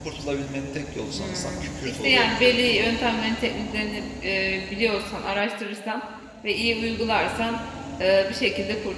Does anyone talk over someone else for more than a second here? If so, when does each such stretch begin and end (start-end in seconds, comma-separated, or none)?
1.1-2.9